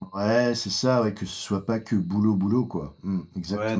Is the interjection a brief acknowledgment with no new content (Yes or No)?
No